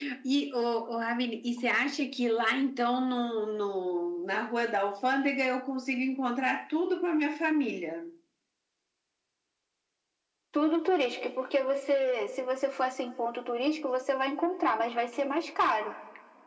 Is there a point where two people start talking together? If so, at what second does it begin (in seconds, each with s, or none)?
none